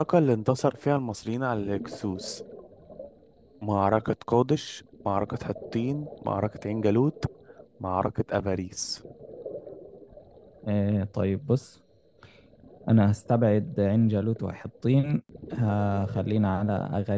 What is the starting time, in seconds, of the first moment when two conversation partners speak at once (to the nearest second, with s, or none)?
none